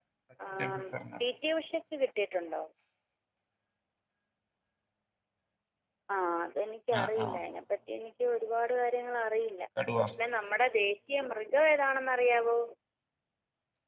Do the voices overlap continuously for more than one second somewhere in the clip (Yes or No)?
No